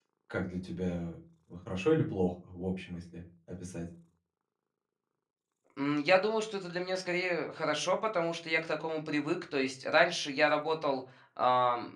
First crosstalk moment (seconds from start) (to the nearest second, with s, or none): none